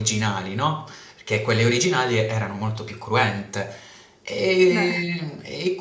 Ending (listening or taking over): listening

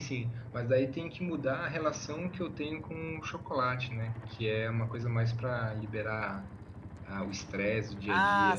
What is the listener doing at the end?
taking over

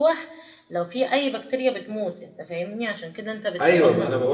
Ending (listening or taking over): taking over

